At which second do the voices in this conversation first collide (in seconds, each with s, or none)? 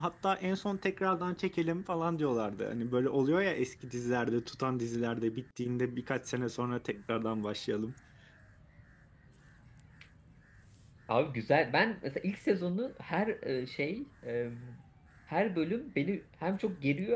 none